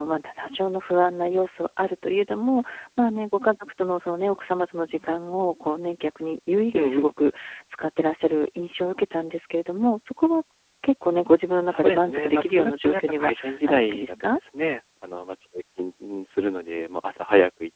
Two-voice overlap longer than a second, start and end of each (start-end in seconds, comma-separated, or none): 11.7-14.4